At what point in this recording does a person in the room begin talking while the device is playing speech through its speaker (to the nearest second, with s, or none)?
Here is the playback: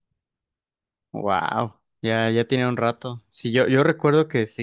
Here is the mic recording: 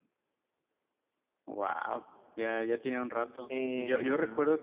3 s